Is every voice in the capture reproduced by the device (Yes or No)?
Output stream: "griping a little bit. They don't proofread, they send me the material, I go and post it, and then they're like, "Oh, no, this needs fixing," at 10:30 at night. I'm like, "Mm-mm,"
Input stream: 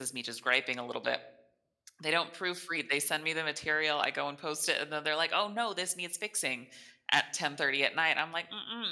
Yes